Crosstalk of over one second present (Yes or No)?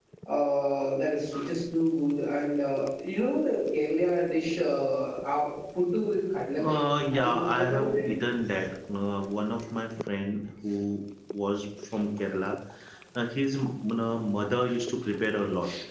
Yes